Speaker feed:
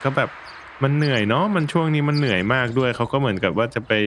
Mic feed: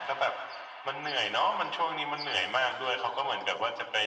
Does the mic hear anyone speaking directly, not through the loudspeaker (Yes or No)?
No